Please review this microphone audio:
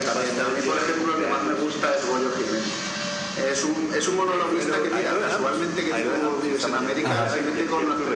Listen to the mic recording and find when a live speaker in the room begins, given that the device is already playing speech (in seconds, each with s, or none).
7.0 s